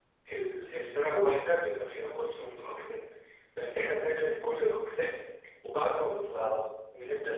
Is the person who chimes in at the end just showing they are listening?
Yes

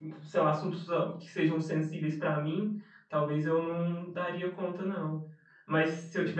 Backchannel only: Yes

